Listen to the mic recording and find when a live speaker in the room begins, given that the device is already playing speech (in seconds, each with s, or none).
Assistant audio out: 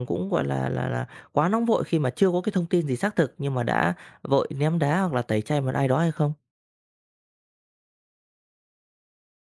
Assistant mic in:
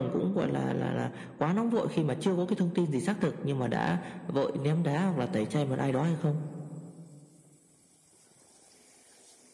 none